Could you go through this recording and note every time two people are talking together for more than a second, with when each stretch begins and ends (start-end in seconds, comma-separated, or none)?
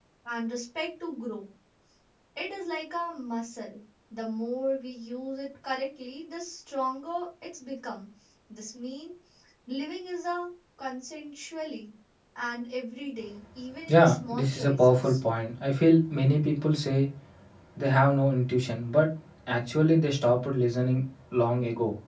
13.9-15.1